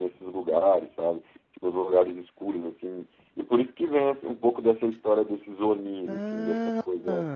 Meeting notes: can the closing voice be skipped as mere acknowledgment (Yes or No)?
Yes